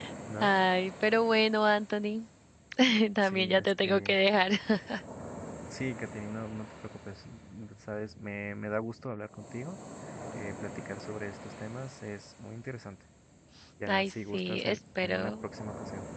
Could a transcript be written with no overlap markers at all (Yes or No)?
No